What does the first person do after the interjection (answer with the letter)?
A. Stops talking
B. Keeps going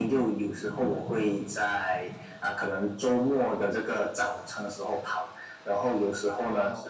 B